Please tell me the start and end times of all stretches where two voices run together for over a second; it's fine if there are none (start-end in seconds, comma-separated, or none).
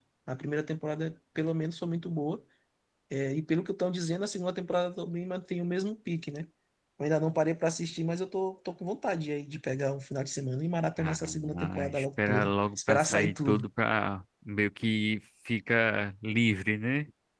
11.0-13.7